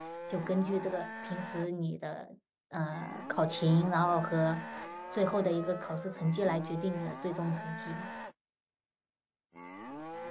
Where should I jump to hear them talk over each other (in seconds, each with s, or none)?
none